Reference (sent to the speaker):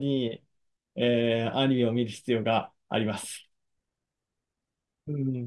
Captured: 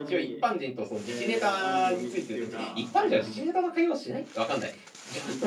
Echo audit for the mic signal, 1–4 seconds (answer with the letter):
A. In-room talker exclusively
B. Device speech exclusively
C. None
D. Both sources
D